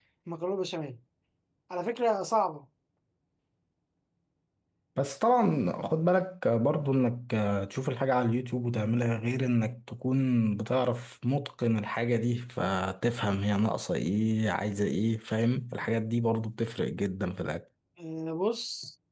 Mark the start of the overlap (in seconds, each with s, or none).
none